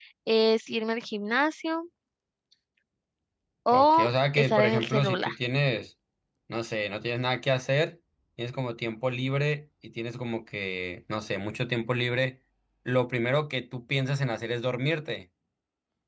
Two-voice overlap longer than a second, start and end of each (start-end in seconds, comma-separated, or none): 3.7-5.3